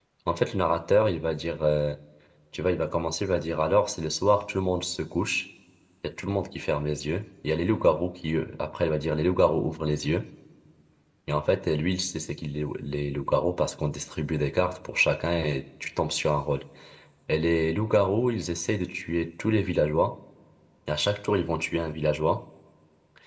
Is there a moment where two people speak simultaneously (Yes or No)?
No